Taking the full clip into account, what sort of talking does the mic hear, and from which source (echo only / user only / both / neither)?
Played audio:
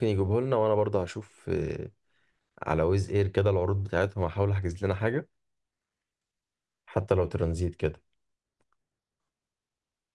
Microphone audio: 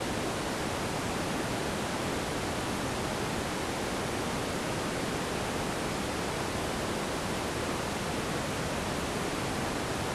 neither